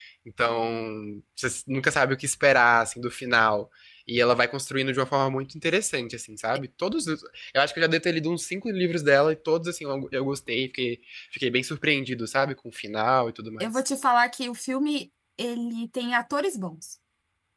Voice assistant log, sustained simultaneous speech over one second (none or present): none